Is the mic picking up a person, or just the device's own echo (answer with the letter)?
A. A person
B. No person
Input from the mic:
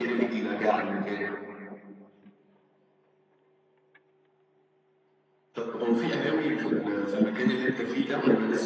B